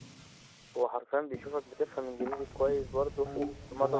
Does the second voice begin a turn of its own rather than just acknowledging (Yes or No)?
Yes